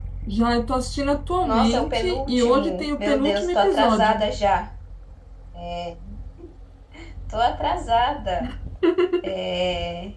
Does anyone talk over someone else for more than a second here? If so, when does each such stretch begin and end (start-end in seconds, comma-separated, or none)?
1.4-4.2